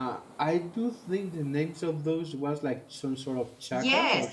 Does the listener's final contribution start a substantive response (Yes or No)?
Yes